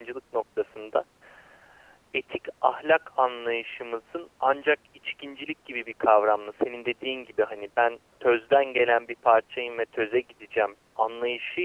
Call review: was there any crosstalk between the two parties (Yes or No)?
No